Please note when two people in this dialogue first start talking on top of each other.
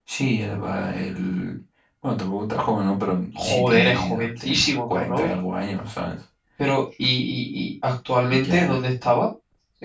3.4 s

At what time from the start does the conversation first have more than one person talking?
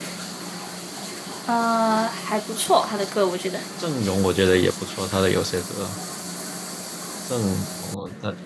none

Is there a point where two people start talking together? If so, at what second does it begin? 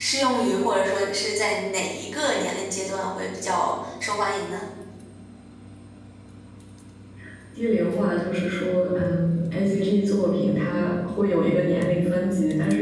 none

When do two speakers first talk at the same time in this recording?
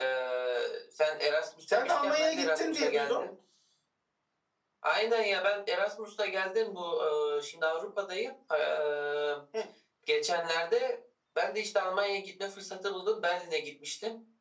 1.7 s

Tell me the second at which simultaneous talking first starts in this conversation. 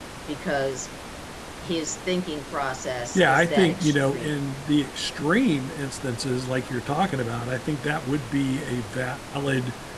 3.1 s

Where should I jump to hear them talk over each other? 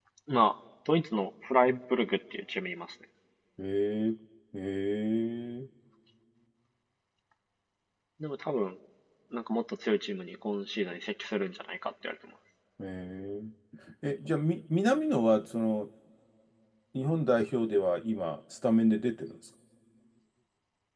none

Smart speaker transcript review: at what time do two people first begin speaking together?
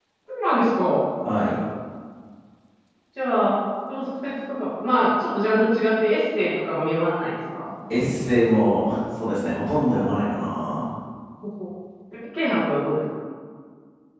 none

